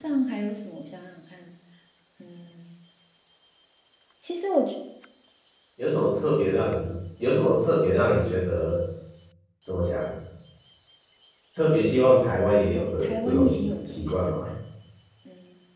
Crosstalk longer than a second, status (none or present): present